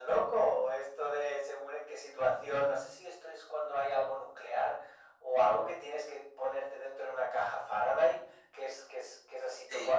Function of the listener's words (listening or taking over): taking over